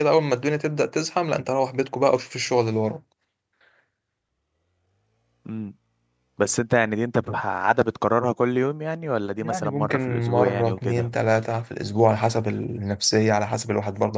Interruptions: present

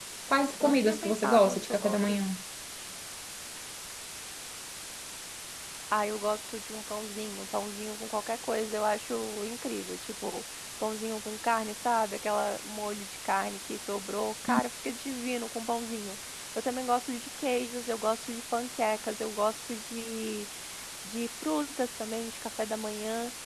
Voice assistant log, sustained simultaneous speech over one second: present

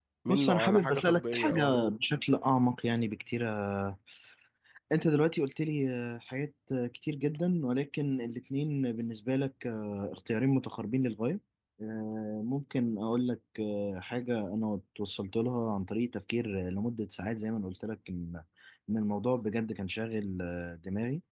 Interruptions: present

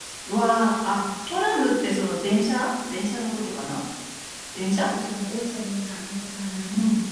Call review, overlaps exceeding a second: none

